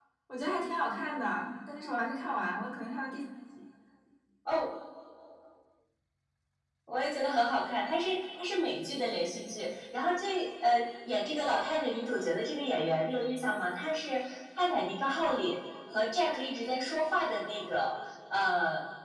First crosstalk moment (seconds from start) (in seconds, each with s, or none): none